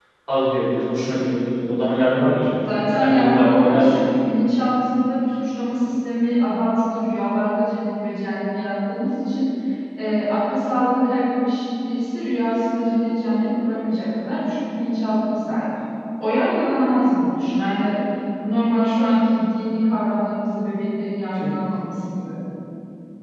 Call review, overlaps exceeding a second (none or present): present